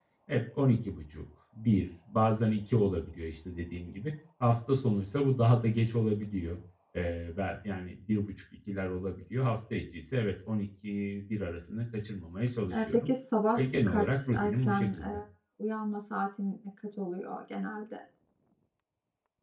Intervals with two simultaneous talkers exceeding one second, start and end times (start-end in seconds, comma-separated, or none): 13.6-15.2